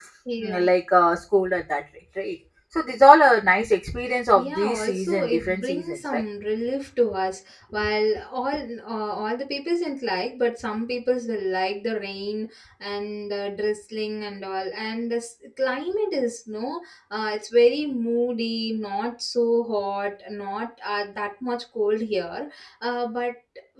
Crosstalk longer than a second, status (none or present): present